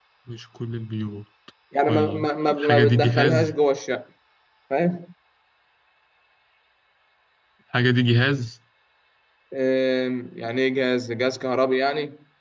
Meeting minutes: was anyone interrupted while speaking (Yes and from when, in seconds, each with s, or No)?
Yes, from 1.9 s